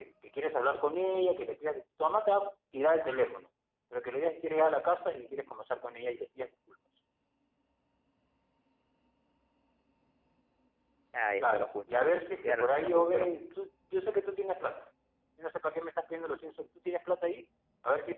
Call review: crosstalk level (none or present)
present